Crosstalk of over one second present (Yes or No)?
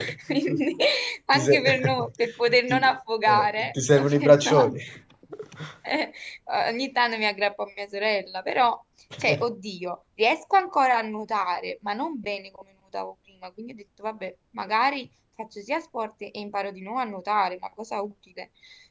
Yes